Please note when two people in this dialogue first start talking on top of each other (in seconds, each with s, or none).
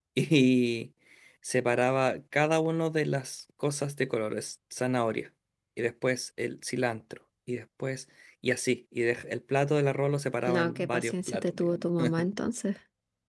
10.4 s